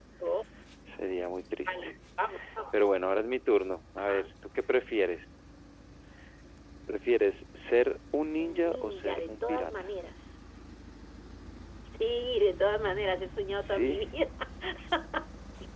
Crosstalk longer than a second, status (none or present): present